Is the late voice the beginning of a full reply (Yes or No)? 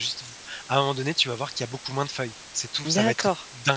Yes